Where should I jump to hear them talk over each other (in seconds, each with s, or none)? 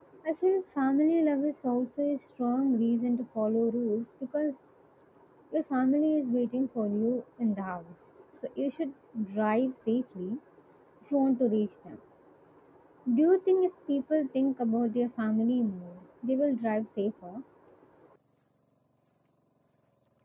none